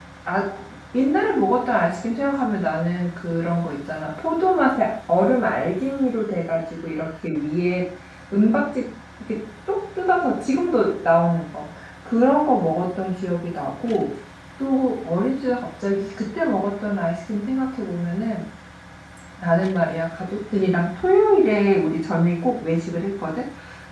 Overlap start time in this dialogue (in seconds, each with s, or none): none